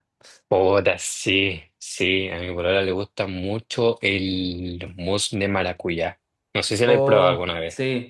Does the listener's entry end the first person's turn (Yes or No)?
Yes